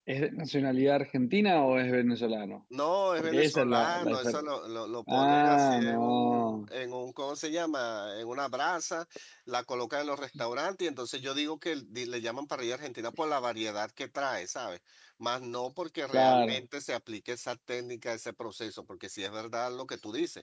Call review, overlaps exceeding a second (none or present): present